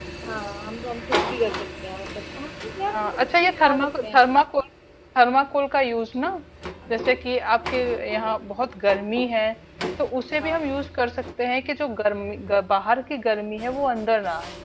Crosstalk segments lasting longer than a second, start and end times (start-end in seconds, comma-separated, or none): 2.9-4.2